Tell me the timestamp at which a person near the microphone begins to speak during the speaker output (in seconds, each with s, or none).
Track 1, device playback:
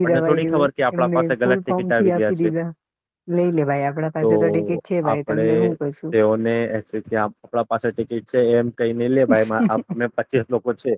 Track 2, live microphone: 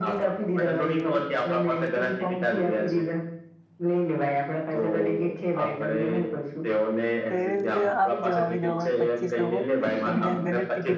7.3 s